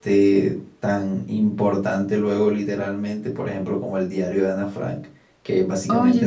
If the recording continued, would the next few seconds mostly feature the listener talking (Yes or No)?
No